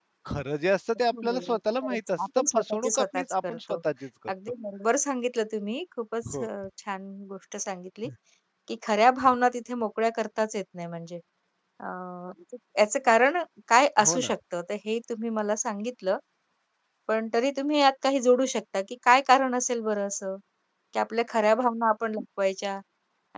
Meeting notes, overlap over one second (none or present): present